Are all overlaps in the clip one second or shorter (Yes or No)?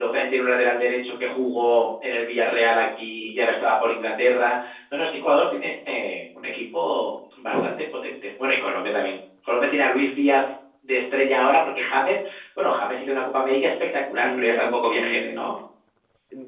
No